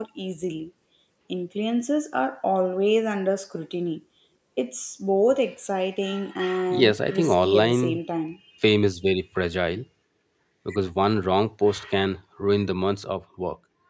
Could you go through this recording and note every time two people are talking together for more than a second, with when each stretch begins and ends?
6.7-8.0

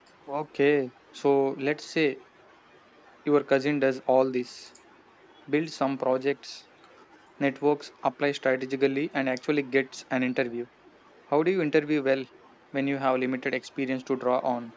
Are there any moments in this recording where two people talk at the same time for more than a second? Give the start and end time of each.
none

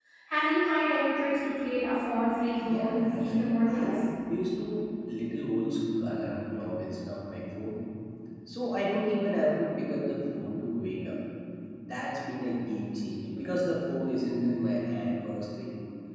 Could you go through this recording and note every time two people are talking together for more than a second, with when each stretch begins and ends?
2.6-3.9

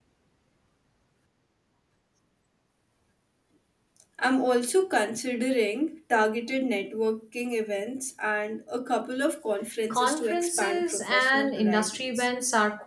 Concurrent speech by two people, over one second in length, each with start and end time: 9.9-12.3

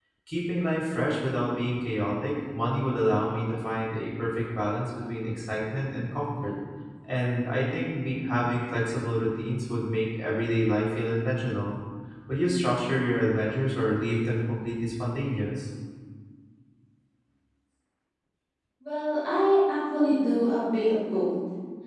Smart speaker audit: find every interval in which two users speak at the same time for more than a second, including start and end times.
none

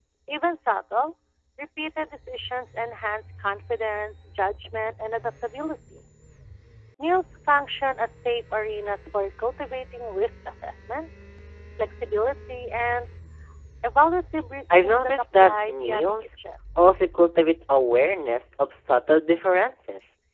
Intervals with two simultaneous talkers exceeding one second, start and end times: 14.7-16.1

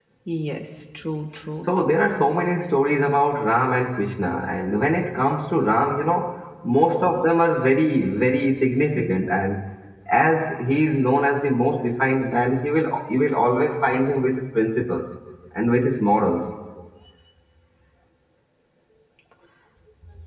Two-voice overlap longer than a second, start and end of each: none

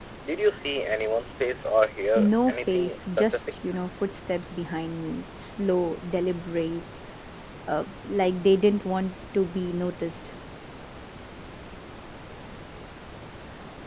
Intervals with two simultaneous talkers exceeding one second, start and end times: 2.1-3.4

